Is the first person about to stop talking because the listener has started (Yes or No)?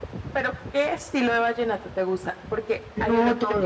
No